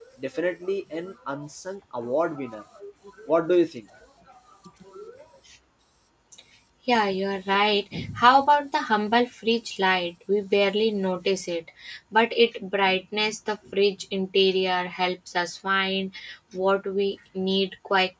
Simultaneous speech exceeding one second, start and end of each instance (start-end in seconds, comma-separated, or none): none